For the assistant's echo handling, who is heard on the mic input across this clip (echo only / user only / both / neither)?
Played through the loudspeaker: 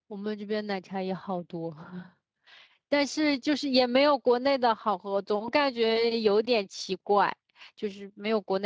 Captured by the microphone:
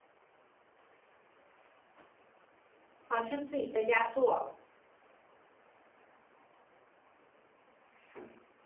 user only